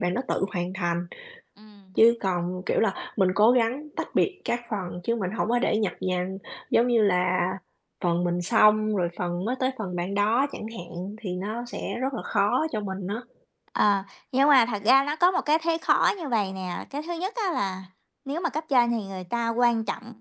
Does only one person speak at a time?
Yes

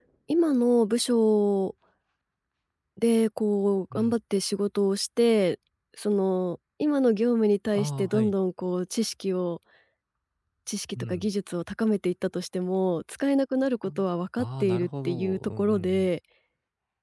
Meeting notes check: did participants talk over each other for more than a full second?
Yes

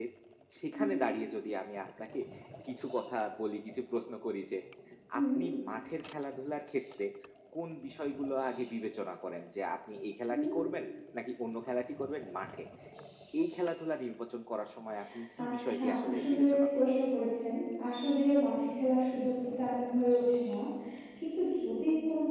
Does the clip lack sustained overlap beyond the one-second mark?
No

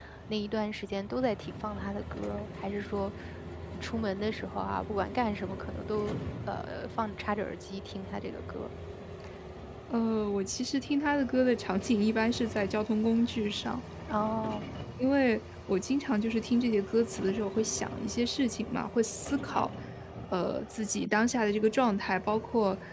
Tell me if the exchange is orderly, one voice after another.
Yes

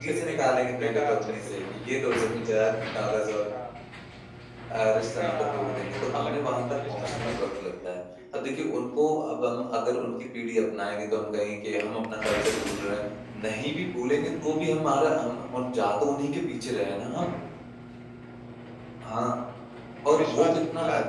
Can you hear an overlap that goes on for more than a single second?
Yes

